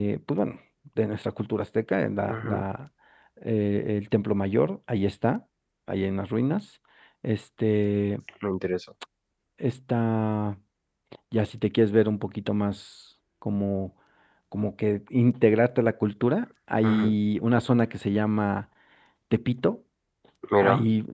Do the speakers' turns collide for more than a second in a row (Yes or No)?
No